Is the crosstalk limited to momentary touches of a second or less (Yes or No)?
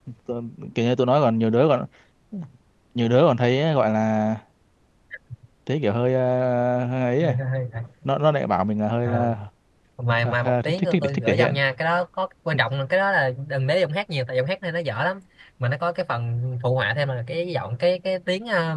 No